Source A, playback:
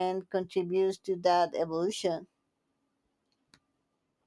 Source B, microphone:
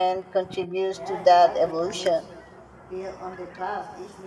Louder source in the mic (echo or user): echo